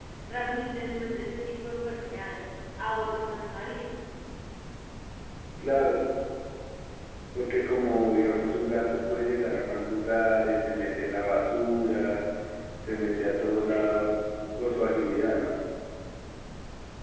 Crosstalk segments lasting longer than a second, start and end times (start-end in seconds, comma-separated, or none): none